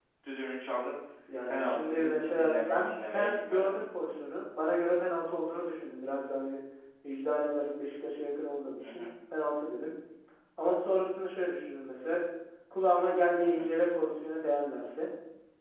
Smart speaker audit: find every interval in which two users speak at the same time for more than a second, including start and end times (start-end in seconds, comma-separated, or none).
1.5-3.8